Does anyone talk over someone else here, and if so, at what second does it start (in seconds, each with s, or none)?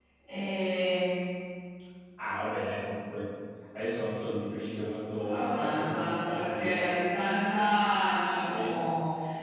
5.2 s